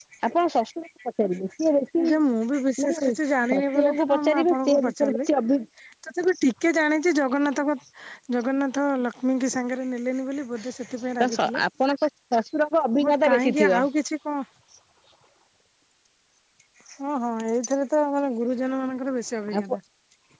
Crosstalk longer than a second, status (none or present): present